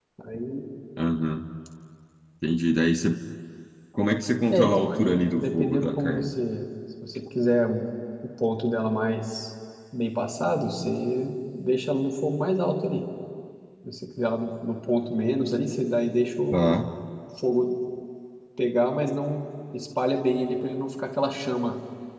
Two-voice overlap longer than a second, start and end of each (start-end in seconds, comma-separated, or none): 4.5-6.3